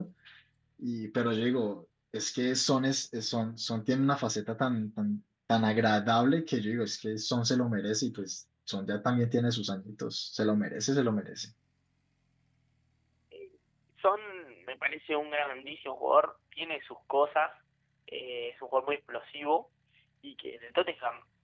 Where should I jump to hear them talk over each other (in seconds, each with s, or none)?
none